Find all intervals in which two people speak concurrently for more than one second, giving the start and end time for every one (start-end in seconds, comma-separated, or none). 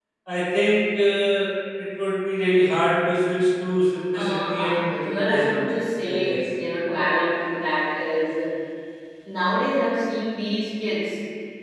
4.1-5.6